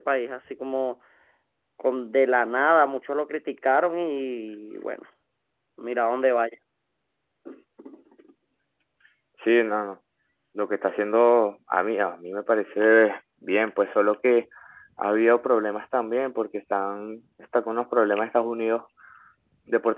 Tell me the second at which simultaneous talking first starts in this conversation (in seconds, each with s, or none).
none